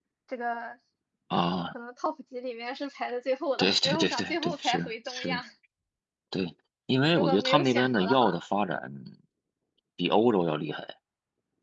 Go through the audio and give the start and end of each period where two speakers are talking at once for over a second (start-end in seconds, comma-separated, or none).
3.6-5.4, 7.1-8.3